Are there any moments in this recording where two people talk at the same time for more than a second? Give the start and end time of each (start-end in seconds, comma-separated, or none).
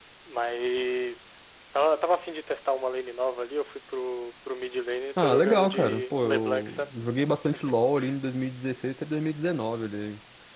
5.2-6.9